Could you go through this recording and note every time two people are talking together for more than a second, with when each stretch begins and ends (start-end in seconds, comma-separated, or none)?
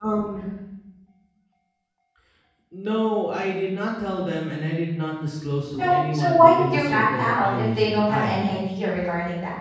5.8-8.4